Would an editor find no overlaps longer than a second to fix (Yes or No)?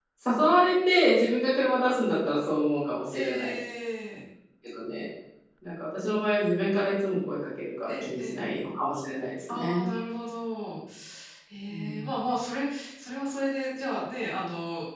Yes